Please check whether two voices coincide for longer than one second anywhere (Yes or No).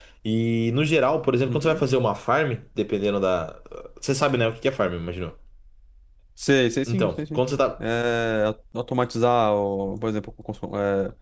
No